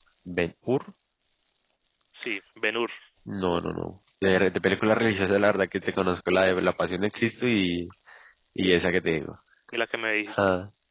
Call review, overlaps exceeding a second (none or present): none